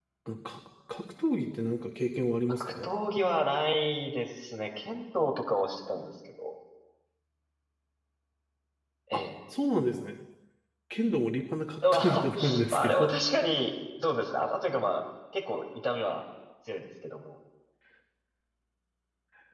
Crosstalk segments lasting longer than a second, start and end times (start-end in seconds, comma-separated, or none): 11.8-13.2